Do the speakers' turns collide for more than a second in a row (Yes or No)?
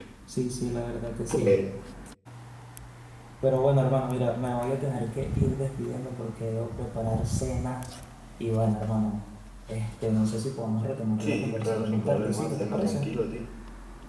Yes